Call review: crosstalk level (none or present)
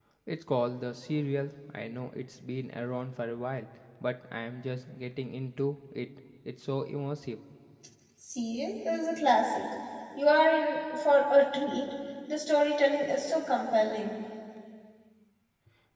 none